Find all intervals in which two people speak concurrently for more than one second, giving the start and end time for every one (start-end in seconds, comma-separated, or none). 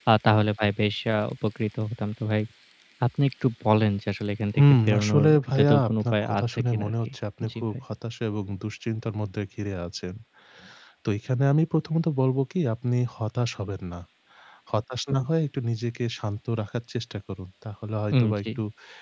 4.6-7.1